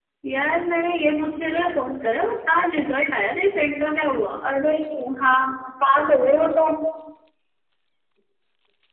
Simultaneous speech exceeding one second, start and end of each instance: none

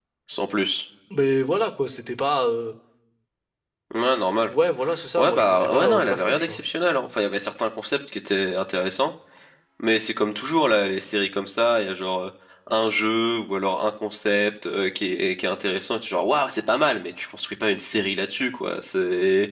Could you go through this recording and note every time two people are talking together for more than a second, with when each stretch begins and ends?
5.2-6.6

